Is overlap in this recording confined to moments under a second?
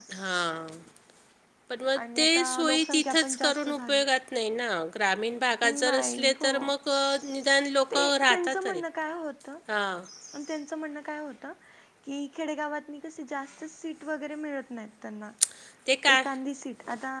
No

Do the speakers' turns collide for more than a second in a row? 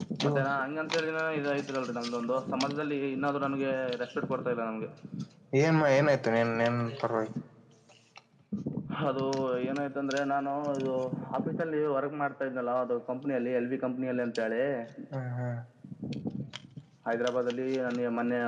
No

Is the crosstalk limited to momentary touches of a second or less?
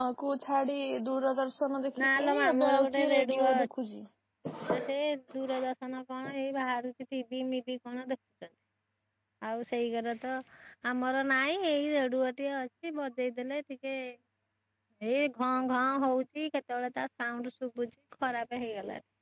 No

